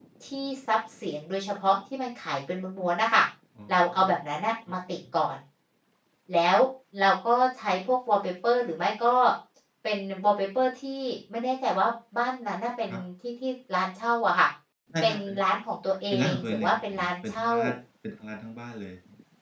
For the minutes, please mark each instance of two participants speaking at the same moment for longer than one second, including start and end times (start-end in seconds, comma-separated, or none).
16.1-17.5